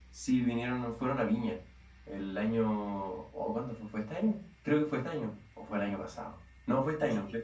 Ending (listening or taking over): listening